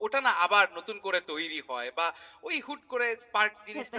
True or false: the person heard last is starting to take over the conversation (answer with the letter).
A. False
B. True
B